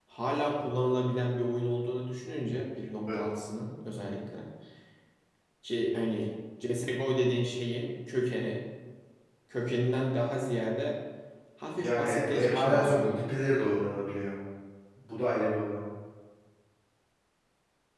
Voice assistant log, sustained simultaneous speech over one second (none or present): present